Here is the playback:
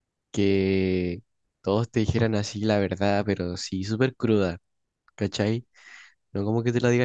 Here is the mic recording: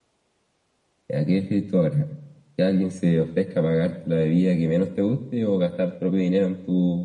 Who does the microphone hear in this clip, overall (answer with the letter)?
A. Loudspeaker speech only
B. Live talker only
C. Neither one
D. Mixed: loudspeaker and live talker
B